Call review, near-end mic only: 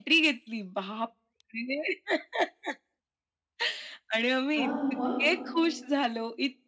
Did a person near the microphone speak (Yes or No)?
Yes